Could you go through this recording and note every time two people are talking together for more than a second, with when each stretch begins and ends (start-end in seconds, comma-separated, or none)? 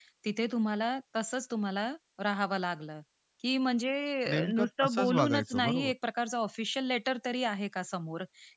4.3-5.9